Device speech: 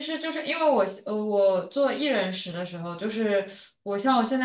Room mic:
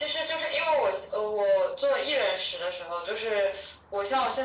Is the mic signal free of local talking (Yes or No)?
Yes